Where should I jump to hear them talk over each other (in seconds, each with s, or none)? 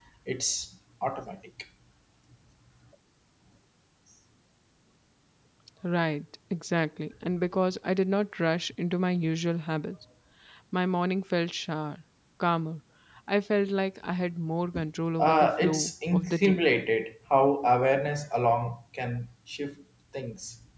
15.2 s